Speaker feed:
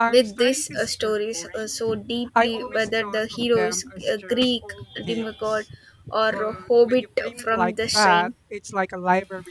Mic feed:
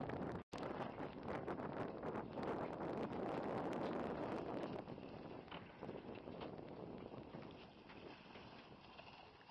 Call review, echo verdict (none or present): none